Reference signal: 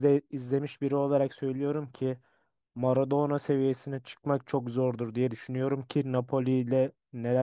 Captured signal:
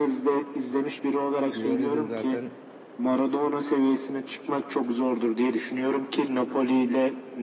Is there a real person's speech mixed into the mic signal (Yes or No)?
Yes